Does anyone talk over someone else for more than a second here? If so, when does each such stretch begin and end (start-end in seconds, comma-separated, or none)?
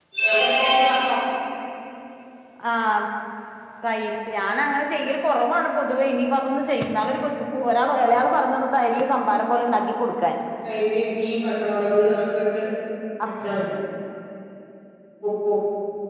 none